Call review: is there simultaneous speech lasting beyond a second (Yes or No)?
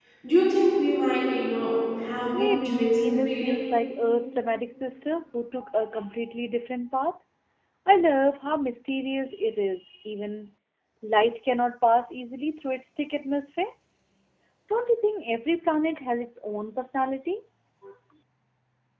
Yes